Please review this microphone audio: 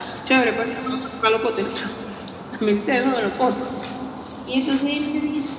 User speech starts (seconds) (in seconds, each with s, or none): none